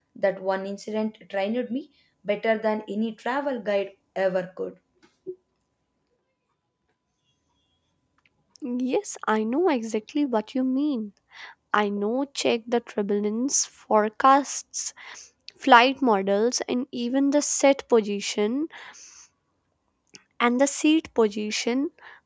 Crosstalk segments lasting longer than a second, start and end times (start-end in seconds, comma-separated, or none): none